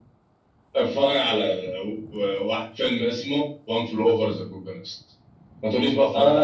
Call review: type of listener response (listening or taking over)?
taking over